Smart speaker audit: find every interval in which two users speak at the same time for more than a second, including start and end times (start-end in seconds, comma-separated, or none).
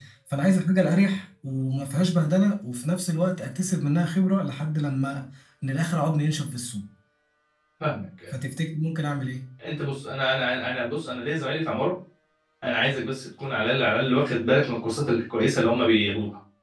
none